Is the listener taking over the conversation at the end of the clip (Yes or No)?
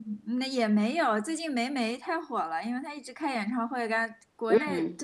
No